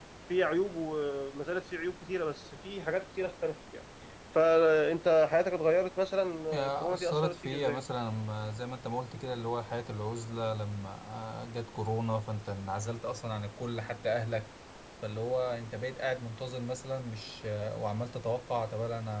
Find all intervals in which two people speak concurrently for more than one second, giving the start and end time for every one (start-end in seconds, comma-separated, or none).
6.5-7.8